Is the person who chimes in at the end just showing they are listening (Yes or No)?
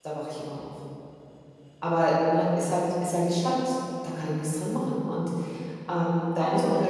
Yes